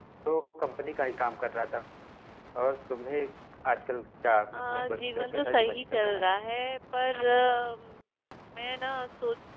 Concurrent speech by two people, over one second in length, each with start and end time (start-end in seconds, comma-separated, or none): 4.5-6.3